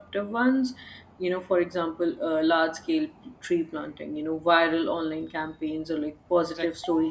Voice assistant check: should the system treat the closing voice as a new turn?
No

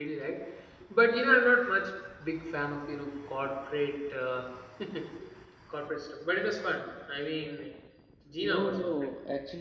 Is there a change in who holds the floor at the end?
Yes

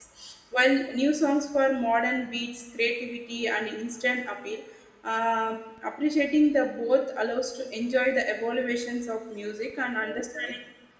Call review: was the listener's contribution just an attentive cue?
No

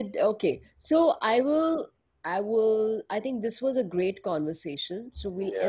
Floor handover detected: No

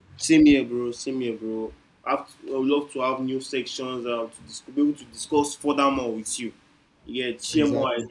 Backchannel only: Yes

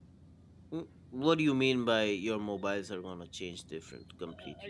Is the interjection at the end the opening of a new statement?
Yes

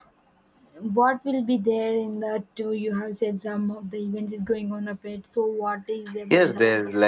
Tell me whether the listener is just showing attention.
No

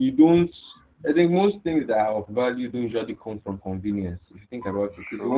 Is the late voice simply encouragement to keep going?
Yes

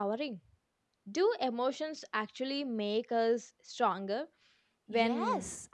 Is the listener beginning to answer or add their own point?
Yes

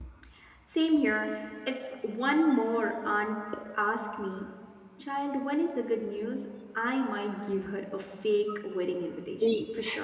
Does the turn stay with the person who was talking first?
No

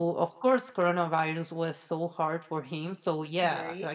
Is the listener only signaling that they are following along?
Yes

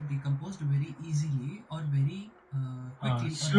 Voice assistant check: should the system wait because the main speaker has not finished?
No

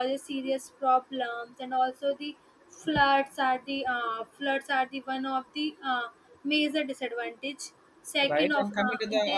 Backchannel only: No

